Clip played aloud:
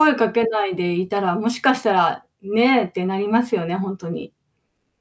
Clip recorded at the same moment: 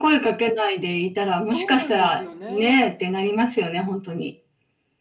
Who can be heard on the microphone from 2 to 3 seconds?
both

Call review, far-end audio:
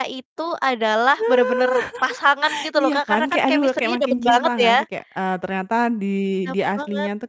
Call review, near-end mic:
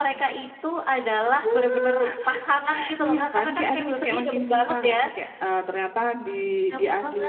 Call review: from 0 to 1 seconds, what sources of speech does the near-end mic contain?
echo only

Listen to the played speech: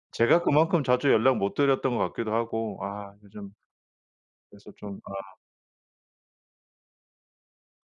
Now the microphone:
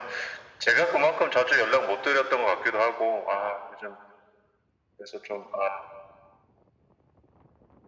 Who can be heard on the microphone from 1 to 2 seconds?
echo only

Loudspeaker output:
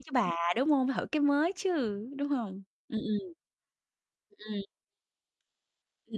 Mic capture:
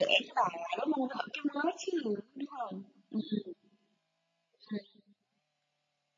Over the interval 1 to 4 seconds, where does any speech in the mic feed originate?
echo only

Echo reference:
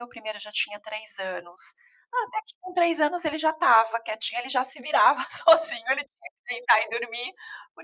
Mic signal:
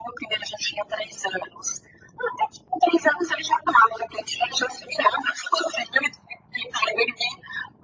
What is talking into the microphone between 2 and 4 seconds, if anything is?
echo only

